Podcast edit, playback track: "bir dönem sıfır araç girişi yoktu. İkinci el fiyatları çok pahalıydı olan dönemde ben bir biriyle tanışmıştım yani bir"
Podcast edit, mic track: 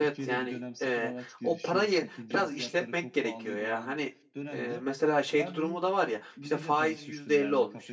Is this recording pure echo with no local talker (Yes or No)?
No